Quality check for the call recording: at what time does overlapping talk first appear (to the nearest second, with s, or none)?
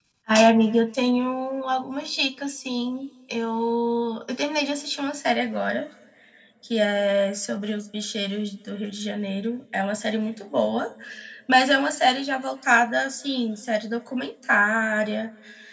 none